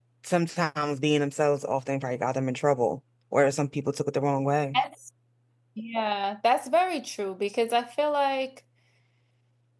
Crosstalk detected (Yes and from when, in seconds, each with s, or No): No